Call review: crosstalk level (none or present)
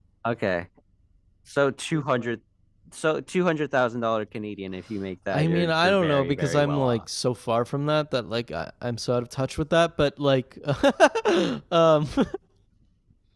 present